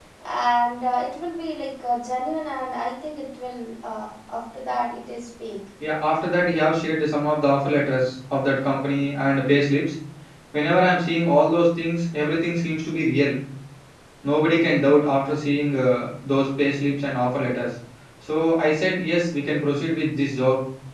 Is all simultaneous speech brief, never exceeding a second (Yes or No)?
Yes